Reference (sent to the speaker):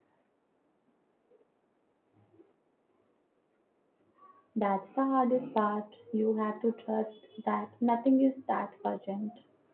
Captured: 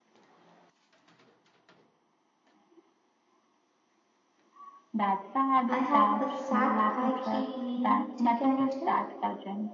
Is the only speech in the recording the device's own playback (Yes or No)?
No